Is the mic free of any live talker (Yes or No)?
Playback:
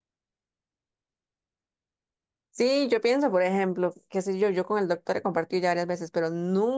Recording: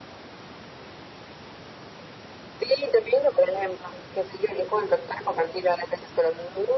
Yes